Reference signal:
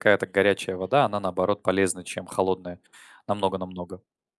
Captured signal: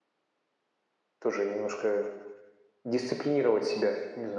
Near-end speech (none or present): present